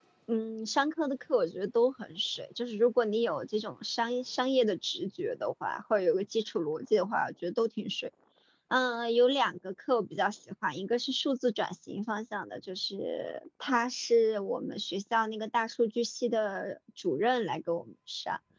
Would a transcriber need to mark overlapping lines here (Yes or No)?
No